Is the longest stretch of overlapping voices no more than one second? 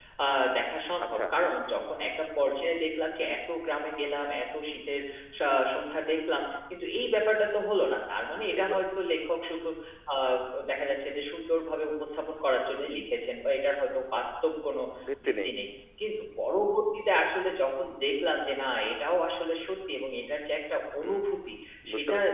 Yes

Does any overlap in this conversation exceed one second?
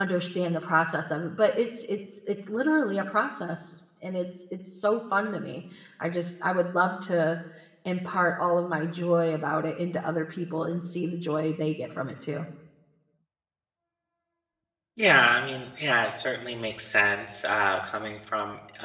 No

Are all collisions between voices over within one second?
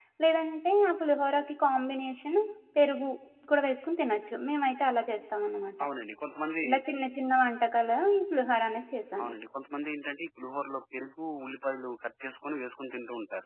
Yes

